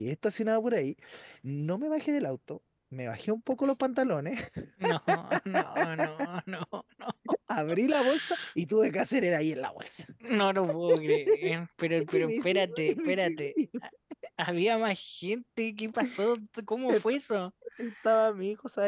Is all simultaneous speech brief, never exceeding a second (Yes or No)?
No